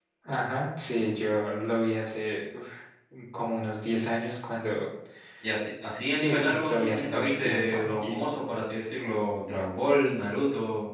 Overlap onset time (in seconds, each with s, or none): 6.1 s